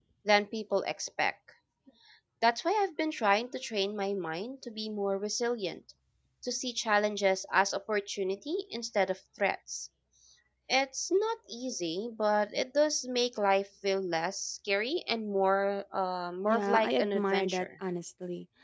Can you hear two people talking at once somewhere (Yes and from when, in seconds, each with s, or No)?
Yes, from 16.4 s